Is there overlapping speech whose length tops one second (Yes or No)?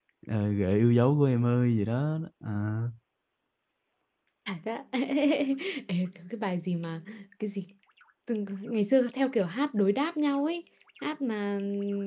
No